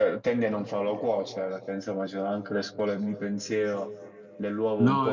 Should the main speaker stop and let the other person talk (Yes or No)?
Yes